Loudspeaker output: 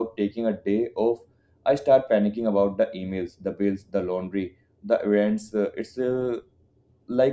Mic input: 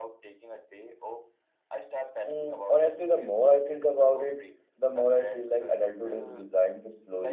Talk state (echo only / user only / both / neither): both